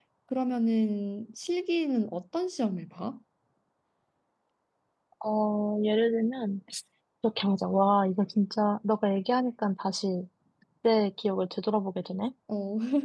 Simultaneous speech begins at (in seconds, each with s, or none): none